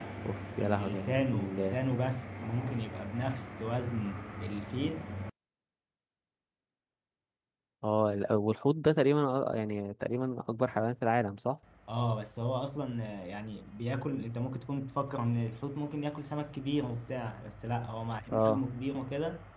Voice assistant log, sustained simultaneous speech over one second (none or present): present